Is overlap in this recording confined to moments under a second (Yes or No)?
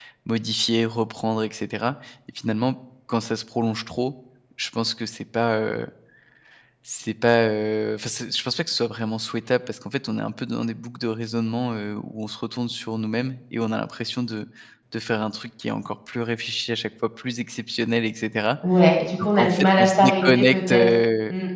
No